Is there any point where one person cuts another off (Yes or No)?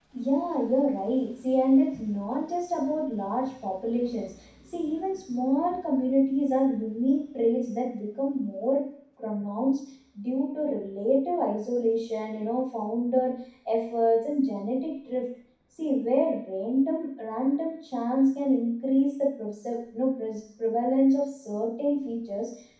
No